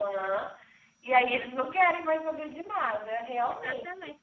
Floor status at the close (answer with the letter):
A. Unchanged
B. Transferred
B